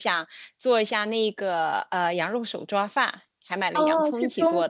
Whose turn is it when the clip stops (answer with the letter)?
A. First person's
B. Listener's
B